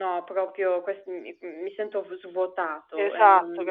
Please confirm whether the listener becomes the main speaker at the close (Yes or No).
Yes